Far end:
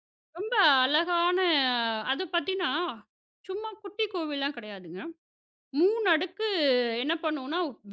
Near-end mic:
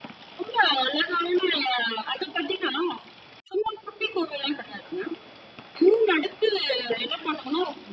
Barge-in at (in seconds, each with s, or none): none